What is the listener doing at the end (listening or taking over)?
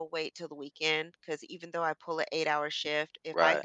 listening